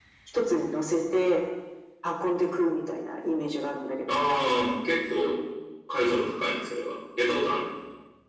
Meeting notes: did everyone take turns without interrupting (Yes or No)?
Yes